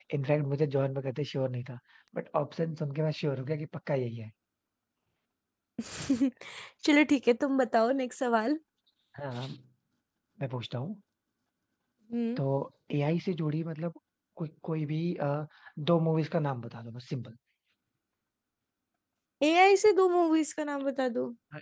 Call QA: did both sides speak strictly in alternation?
Yes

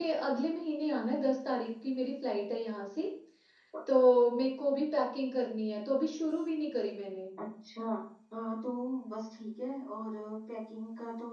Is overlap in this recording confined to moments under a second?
Yes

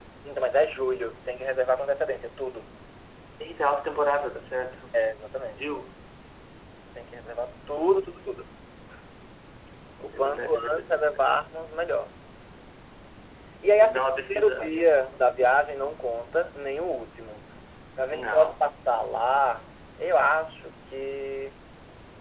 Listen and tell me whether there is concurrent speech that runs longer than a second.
Yes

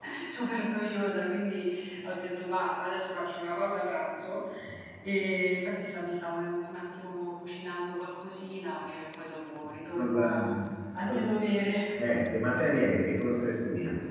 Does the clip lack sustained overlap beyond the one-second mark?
Yes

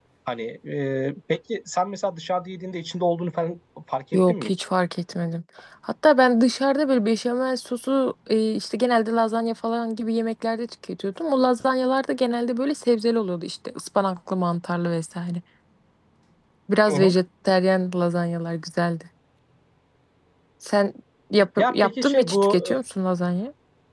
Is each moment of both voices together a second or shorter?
No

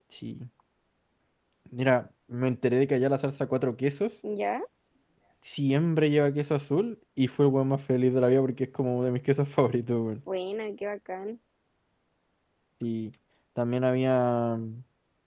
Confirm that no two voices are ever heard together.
Yes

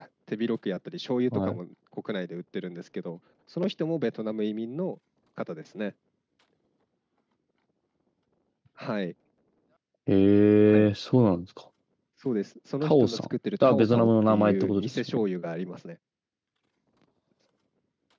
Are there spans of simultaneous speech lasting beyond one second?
Yes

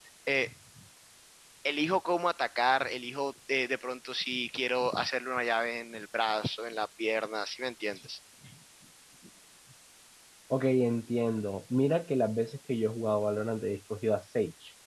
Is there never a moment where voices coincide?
Yes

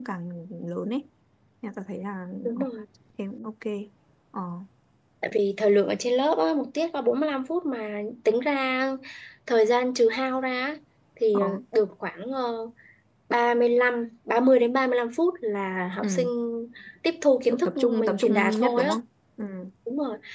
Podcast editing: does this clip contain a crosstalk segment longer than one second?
Yes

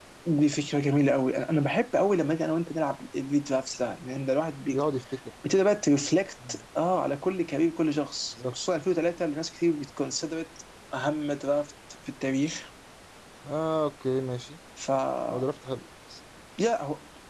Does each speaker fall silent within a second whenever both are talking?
Yes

